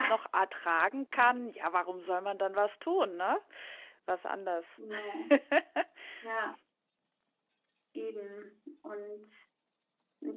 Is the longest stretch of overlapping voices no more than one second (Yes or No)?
Yes